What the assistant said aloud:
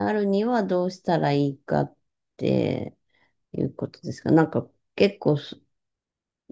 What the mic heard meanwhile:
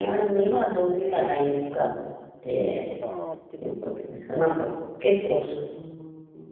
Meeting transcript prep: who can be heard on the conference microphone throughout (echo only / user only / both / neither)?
both